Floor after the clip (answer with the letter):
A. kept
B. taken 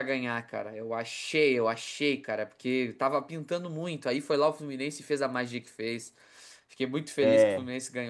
A